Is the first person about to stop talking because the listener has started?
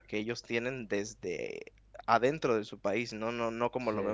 No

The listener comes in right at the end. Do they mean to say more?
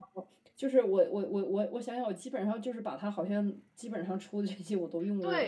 Yes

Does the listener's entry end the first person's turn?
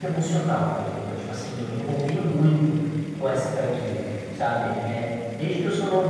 No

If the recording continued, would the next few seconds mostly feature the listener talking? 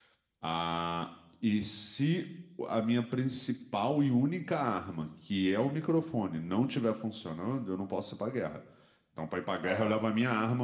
No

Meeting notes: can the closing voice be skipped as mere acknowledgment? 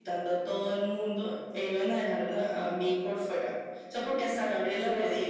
No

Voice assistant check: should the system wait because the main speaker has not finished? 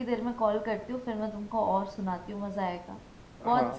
No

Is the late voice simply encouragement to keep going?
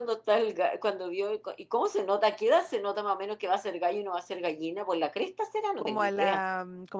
No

